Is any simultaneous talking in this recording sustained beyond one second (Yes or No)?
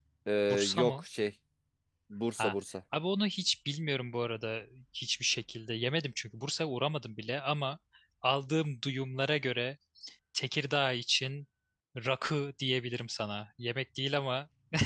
No